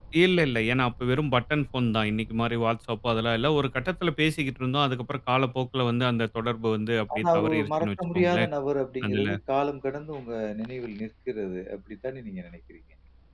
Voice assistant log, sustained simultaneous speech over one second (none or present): present